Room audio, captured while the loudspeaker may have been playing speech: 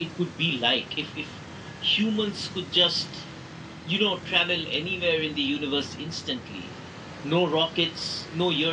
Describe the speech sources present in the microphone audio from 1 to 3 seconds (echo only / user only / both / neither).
echo only